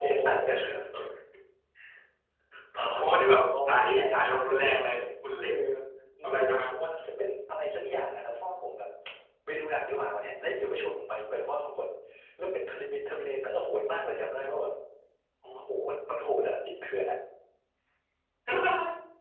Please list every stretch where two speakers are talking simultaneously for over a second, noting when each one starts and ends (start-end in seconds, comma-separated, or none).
3.5-5.0